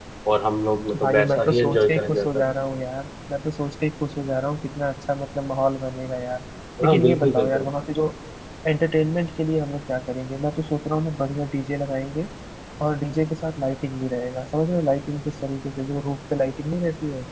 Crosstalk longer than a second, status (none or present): present